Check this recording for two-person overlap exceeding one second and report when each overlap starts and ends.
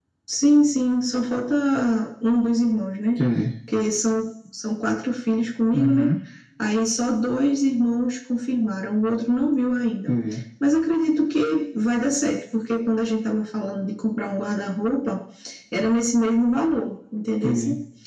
none

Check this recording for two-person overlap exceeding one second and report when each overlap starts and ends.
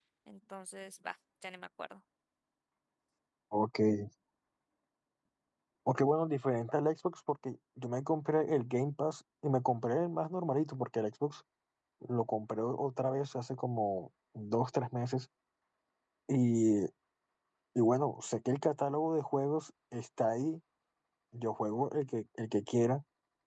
none

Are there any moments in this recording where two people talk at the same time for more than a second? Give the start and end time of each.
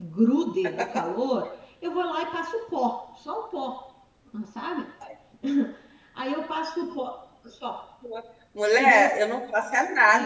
none

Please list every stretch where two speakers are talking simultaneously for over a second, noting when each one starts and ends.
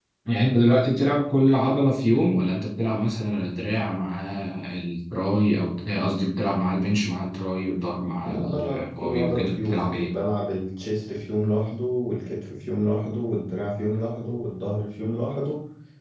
8.2-10.1

